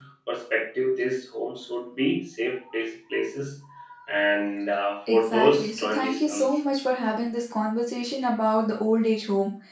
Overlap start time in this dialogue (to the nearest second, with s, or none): 5 s